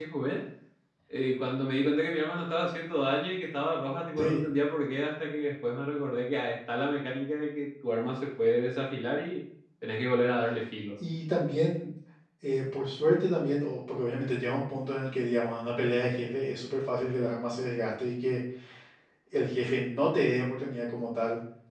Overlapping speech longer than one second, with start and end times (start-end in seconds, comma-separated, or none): none